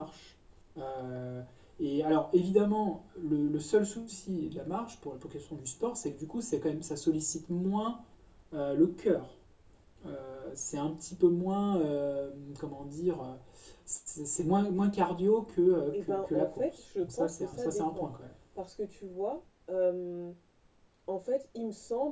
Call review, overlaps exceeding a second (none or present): present